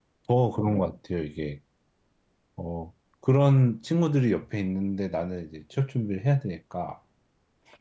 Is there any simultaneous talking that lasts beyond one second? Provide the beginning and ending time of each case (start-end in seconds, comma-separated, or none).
none